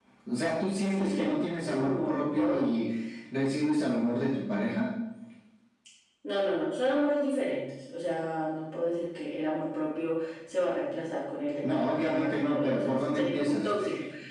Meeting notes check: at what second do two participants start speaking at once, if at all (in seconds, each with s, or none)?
0.9 s